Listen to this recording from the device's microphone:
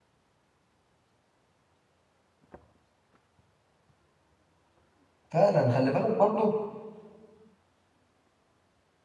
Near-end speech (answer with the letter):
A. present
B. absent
A